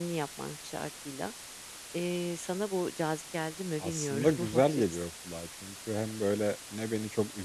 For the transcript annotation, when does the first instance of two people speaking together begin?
3.8 s

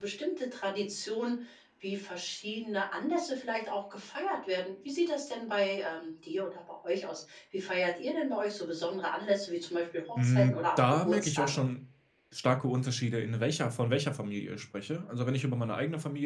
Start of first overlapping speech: 10.2 s

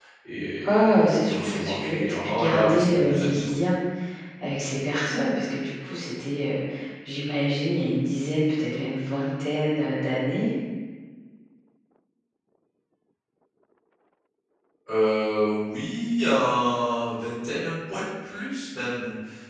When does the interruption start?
0.7 s

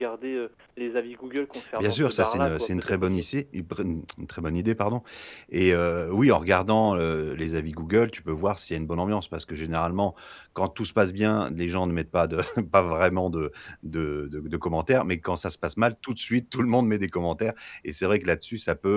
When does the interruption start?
1.5 s

